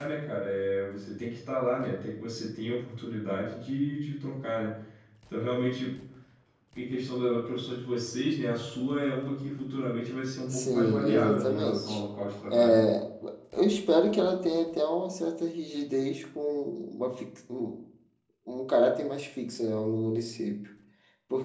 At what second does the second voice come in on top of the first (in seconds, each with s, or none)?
10.5 s